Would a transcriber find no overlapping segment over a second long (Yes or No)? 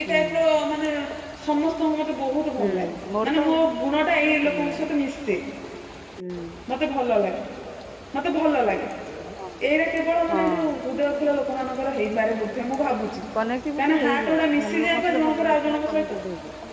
No